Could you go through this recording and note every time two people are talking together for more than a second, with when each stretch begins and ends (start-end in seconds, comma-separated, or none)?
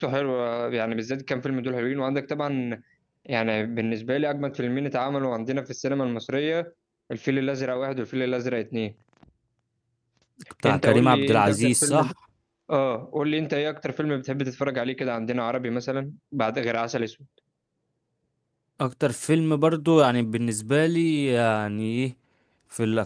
10.7-12.1